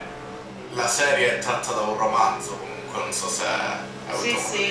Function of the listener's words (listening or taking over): taking over